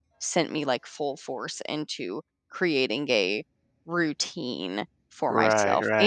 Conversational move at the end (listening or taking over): taking over